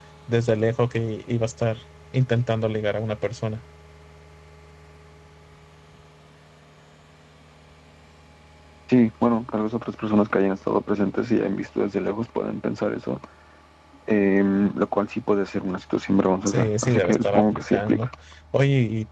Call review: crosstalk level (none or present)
present